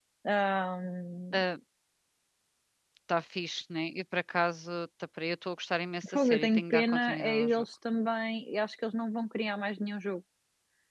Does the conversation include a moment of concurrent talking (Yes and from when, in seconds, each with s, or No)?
Yes, from 6.0 s